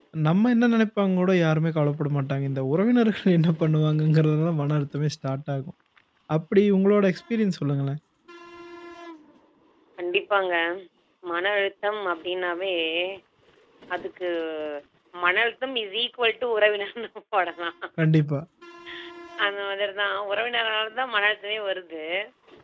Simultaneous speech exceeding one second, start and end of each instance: none

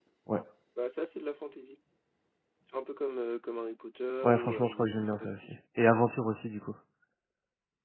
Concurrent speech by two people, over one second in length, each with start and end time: 4.2-5.5

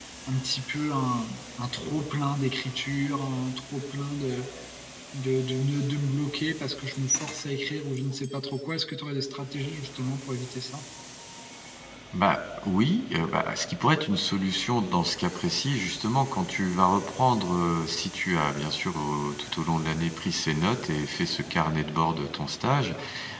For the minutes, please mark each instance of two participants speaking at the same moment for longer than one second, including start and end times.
none

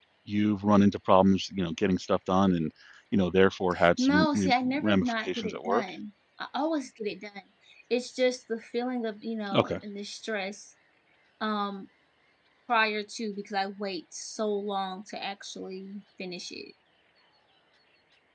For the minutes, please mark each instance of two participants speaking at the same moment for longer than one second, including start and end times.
4.0-5.8

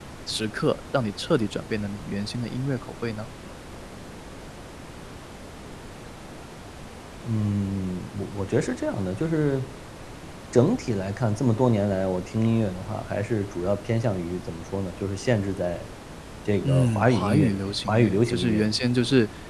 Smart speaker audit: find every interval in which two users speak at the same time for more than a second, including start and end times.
16.6-18.9

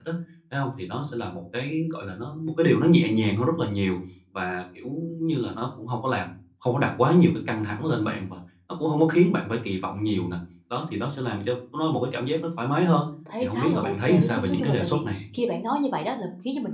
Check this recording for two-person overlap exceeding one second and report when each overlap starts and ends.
13.4-15.2

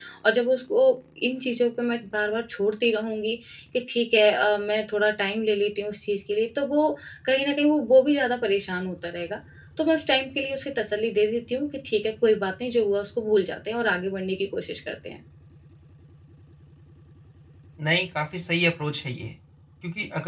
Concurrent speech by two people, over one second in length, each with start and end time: none

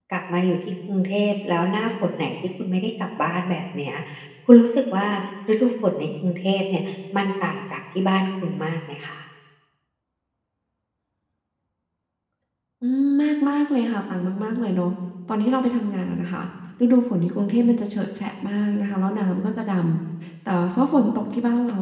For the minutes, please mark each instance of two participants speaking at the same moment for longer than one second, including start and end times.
none

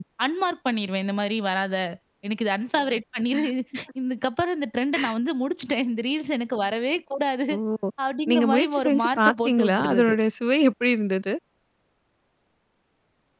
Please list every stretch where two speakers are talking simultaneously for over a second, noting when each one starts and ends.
8.3-10.1

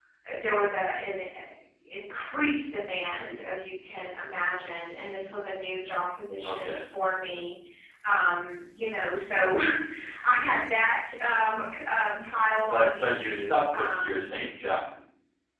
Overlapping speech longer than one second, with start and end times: 12.7-14.4

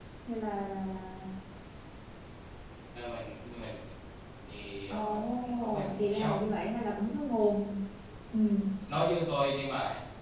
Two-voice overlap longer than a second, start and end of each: 4.9-6.4

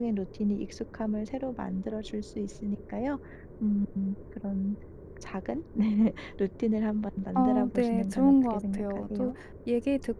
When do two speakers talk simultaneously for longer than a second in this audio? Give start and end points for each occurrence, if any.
7.4-9.3

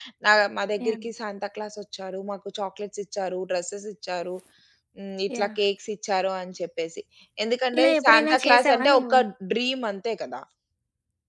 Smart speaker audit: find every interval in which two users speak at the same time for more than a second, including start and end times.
7.8-9.2

